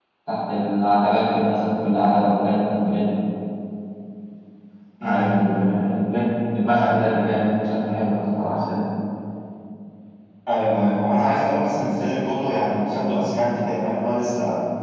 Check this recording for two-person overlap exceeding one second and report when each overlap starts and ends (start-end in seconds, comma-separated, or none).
none